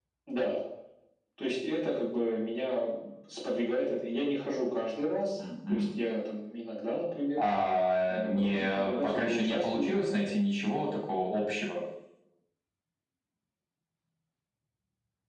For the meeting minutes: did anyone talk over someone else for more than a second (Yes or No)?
Yes